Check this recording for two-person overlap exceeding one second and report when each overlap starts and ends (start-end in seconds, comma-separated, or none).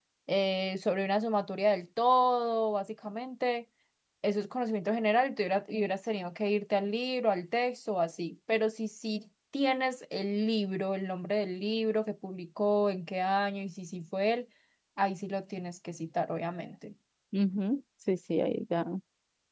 none